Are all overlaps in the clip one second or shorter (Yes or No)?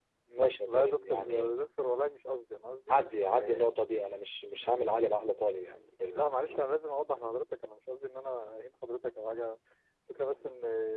No